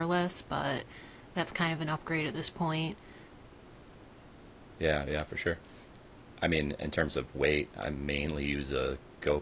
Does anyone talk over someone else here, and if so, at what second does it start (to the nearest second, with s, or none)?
none